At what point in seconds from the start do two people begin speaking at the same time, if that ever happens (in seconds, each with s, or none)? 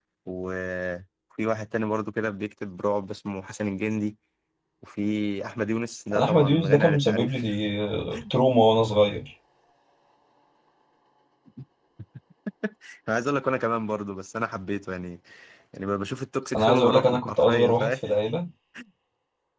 6.2 s